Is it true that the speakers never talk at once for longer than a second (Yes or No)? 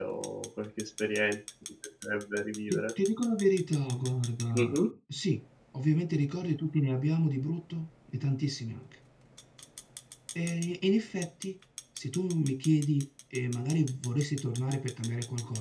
Yes